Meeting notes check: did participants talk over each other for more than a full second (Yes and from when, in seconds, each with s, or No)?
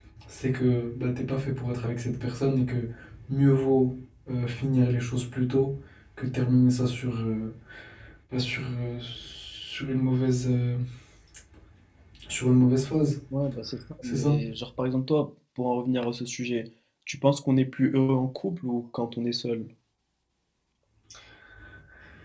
No